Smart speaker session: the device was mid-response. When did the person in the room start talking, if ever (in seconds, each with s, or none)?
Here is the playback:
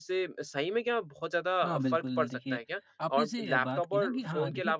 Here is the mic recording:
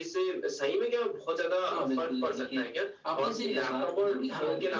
none